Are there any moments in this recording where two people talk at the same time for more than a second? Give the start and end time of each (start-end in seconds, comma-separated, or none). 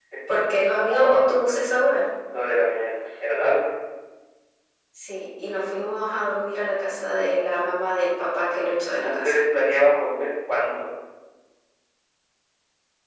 none